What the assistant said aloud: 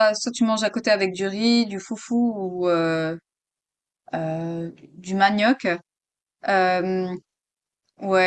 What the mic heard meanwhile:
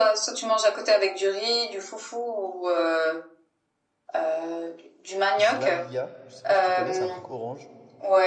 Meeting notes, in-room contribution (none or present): present